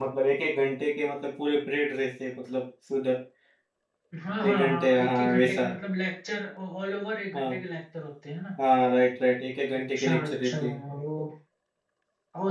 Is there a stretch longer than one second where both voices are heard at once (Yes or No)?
Yes